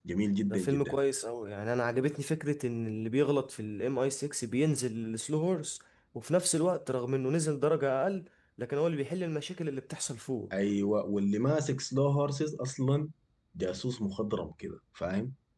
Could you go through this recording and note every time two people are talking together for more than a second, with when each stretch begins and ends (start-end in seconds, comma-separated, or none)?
none